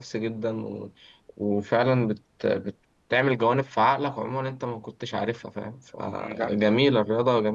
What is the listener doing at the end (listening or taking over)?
listening